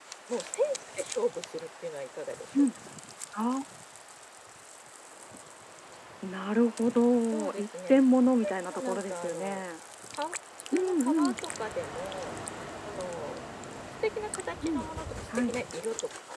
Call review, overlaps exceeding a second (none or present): present